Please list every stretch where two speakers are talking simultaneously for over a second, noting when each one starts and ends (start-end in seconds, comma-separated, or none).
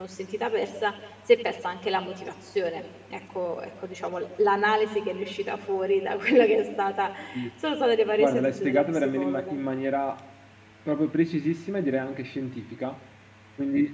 8.2-9.6